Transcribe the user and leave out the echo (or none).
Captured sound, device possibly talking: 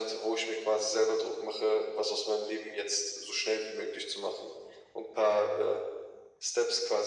none